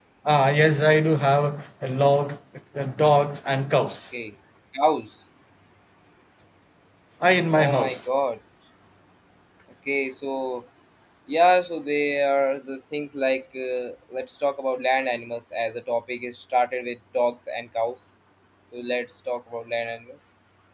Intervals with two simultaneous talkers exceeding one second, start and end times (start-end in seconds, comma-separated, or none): none